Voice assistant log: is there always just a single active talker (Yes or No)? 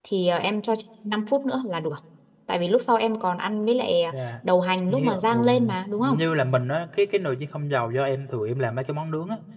No